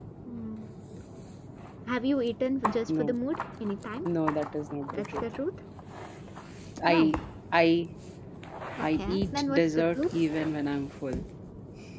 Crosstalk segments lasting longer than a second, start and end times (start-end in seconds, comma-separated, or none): 8.8-10.1